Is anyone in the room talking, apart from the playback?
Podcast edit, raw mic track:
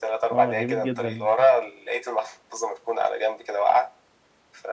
Yes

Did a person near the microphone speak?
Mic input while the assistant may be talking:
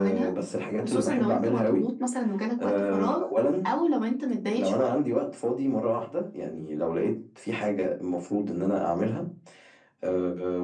No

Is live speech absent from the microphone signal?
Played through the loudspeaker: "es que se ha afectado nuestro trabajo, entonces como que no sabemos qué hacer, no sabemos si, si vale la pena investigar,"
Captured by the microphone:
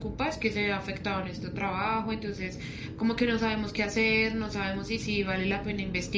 Yes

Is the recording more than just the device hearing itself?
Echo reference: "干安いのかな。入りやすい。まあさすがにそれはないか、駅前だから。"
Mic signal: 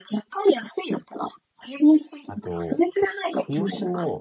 Yes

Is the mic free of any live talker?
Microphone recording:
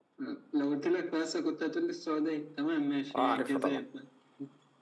No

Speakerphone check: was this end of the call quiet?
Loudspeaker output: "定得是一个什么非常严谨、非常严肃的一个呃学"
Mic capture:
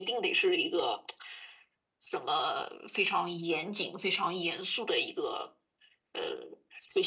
Yes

